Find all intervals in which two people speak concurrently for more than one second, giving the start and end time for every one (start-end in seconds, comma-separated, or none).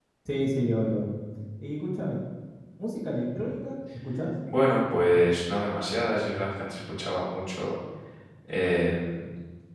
none